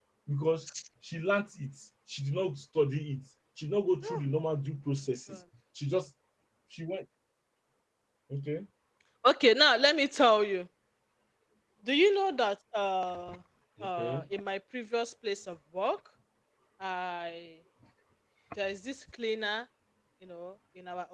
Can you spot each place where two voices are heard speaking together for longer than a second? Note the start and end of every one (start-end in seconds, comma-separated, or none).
none